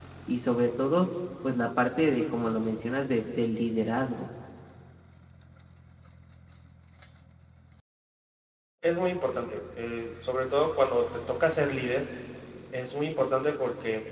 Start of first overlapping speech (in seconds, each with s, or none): none